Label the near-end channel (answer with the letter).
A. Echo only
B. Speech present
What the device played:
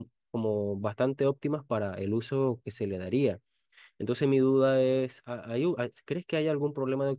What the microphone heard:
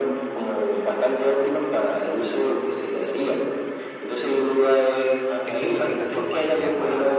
B